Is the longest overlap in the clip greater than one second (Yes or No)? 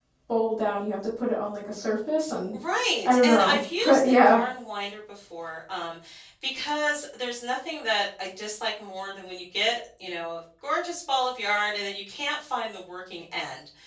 Yes